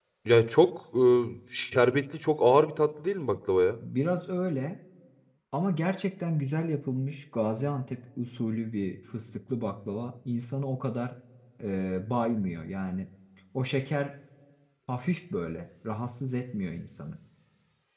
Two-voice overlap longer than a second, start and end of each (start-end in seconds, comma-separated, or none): none